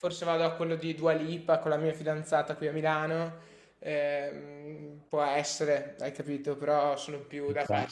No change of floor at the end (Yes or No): Yes